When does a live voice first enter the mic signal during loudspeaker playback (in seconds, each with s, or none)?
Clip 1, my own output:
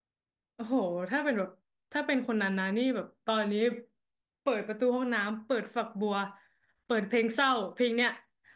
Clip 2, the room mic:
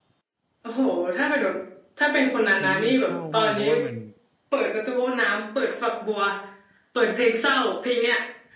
2.5 s